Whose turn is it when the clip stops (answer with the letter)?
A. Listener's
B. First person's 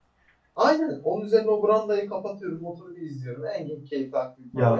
A